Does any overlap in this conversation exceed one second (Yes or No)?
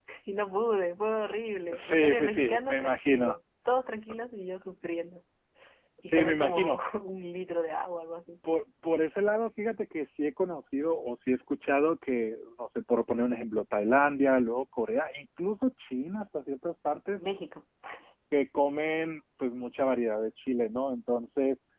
Yes